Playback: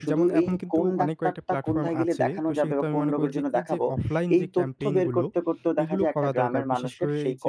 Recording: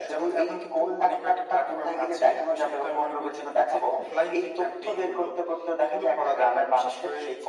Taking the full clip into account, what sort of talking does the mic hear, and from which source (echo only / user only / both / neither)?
echo only